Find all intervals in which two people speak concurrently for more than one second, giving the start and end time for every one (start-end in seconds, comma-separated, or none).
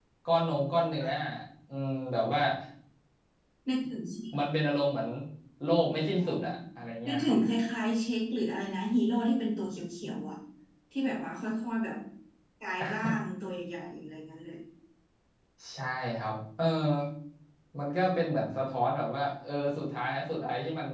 none